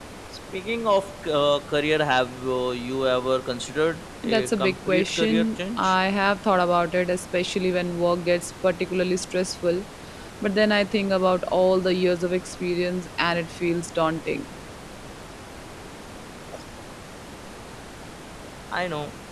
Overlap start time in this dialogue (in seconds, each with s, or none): 4.2 s